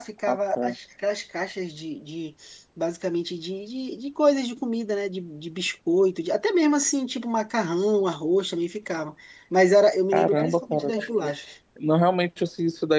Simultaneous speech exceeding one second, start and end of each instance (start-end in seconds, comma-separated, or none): 10.1-11.3